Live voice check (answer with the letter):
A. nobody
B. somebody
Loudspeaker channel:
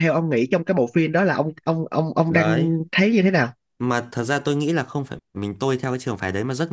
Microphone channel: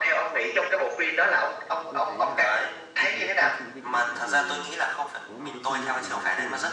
B